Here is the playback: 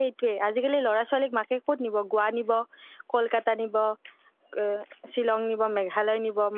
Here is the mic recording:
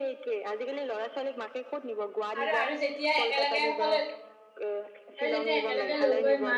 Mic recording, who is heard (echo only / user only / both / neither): both